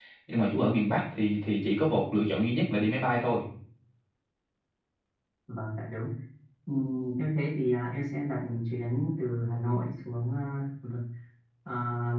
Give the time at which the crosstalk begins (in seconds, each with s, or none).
none